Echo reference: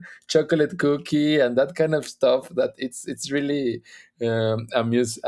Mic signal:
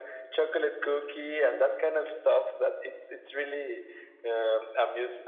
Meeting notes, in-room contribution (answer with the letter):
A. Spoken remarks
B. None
B